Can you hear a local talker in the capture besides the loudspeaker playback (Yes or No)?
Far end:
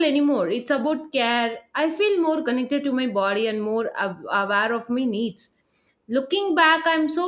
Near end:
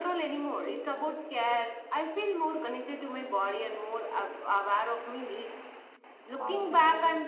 Yes